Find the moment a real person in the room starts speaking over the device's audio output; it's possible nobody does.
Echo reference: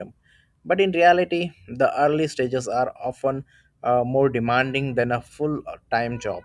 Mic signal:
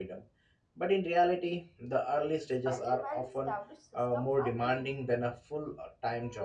2 s

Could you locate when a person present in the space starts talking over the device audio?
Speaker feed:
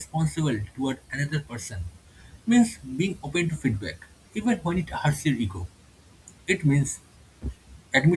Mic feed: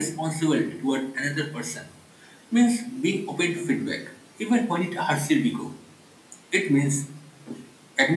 none

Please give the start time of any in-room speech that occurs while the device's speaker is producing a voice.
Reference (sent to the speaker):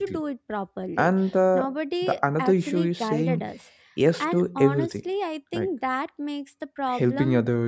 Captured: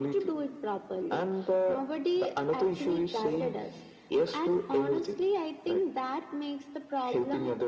none

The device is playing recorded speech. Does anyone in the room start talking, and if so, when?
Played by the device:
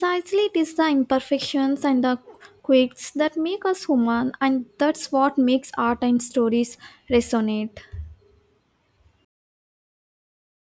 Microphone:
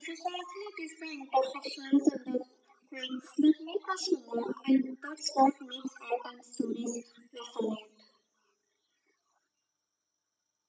none

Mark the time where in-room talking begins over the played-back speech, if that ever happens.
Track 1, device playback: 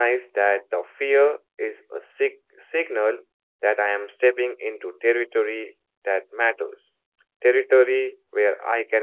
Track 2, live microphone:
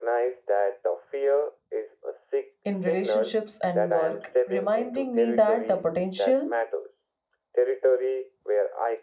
3 s

